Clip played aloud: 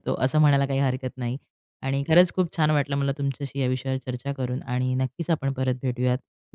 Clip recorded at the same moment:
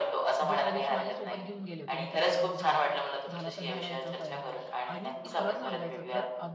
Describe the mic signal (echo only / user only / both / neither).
both